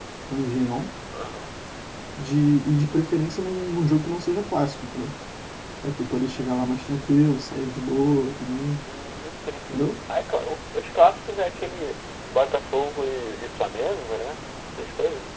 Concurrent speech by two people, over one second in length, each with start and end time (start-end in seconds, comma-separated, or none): none